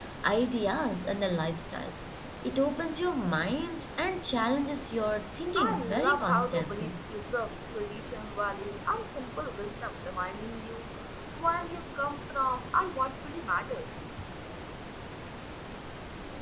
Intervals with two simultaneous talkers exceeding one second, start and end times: 5.6-7.0

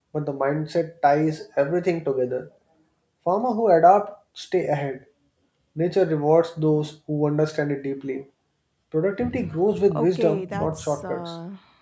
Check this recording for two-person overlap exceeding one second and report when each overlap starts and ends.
9.9-11.3

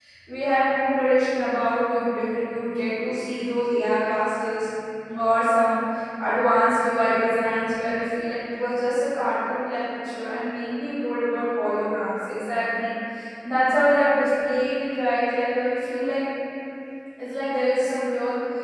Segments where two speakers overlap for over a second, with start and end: none

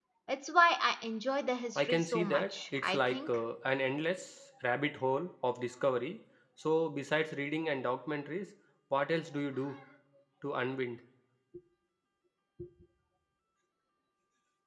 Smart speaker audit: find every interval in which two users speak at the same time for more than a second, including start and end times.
1.8-3.4

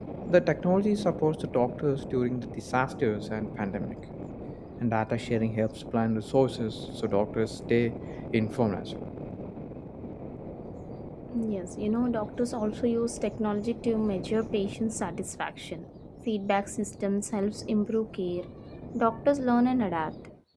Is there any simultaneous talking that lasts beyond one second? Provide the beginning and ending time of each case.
none

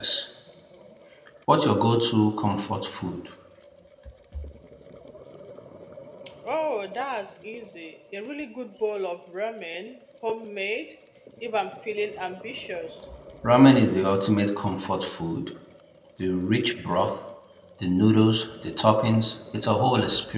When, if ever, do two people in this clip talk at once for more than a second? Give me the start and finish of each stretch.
none

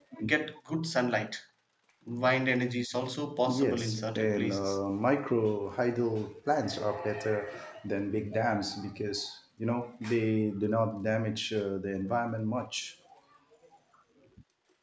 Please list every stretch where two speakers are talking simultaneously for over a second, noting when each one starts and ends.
3.5-4.8

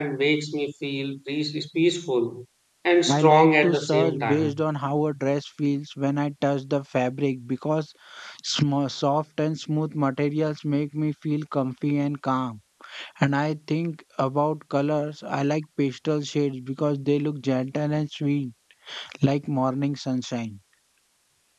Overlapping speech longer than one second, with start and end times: 3.1-4.5

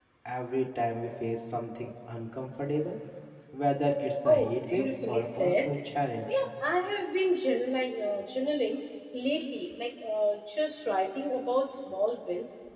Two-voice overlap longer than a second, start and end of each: 4.2-5.5

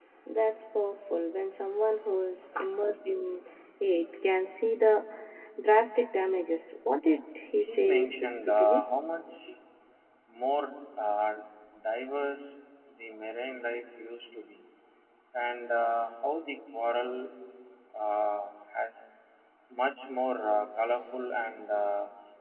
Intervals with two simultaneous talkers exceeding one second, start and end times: 7.6-8.8

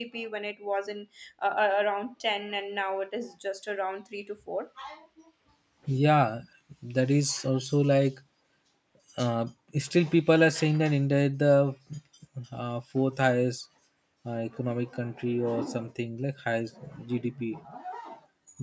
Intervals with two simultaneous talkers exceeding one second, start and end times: none

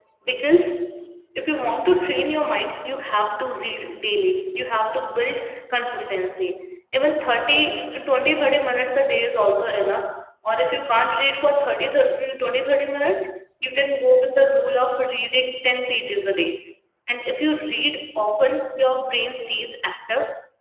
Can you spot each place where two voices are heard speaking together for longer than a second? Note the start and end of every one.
none

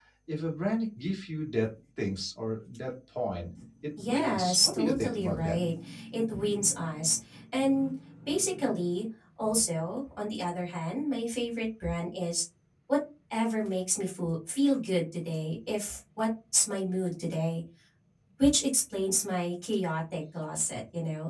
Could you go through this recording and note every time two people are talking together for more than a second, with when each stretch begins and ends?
4.0-5.6

